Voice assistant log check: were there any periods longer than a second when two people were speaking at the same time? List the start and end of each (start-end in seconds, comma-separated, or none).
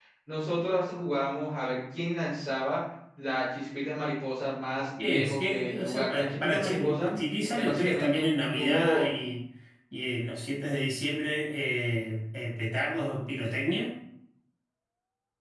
5.0-7.2, 7.5-9.1